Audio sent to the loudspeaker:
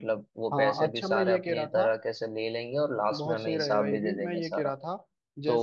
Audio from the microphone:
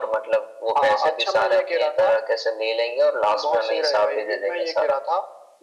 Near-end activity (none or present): none